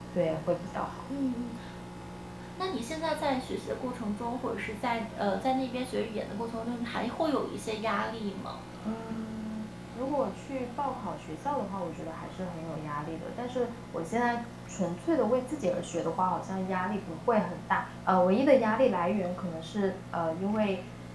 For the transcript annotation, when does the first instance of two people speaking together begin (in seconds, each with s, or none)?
none